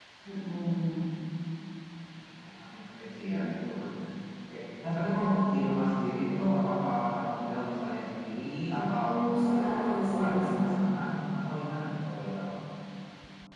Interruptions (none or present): present